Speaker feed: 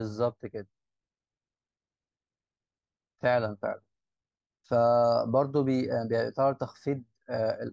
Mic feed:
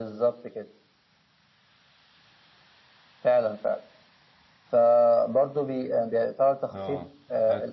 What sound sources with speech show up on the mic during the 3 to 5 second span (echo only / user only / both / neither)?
echo only